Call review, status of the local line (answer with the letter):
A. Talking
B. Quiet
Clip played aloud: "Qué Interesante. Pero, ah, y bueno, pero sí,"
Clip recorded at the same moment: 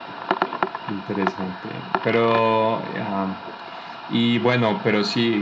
B